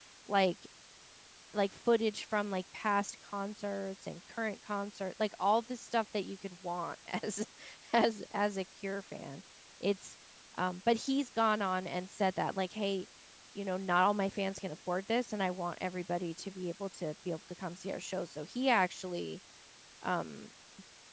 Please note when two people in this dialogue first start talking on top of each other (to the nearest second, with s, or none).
none